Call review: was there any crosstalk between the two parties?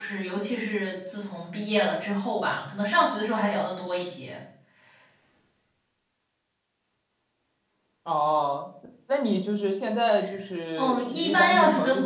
Yes, from 10.8 s

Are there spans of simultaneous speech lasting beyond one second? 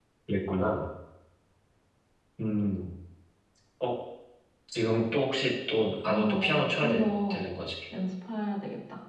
Yes, from 6.0 s

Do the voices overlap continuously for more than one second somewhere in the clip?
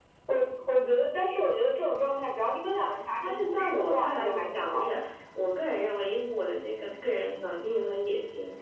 Yes, from 3.2 s

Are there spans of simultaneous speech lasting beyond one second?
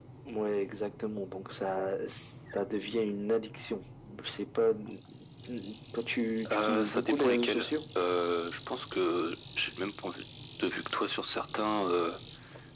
Yes, from 6.5 s

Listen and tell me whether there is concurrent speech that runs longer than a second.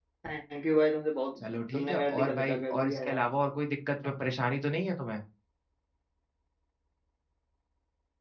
Yes, from 1.4 s

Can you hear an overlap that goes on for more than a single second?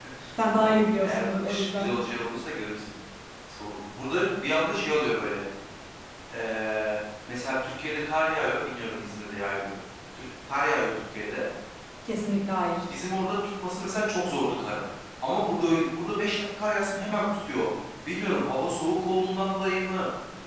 Yes, from 0.6 s

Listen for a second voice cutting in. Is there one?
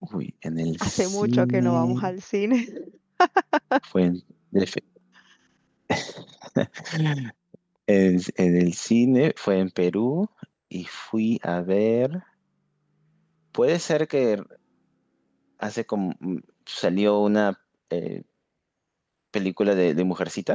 Yes, from 0.8 s

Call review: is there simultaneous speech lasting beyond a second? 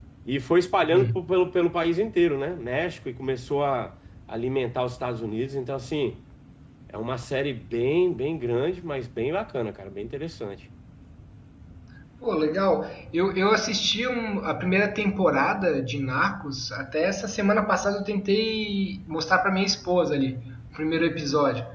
No

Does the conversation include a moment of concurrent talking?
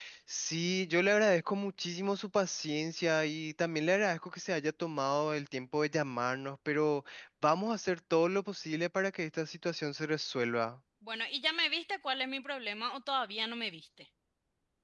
No

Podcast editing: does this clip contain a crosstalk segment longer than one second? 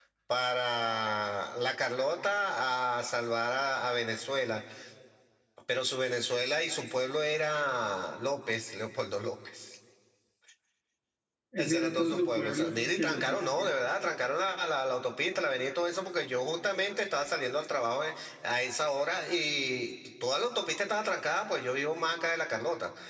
Yes, from 11.6 s

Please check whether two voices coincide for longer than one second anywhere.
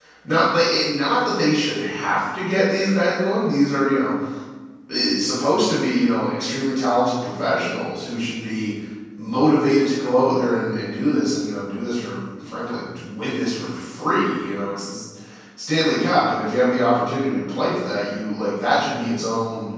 No

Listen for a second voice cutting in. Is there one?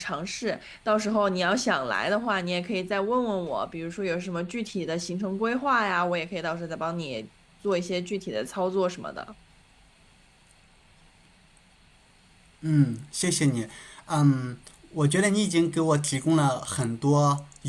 No

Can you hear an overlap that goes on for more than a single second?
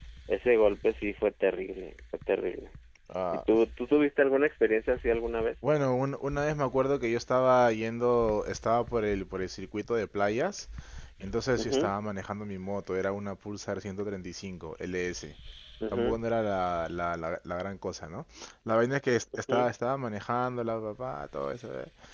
No

